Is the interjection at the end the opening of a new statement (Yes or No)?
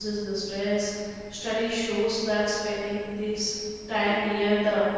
No